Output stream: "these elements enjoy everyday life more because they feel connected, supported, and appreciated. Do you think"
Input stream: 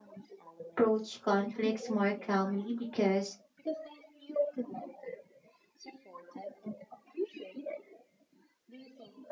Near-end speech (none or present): present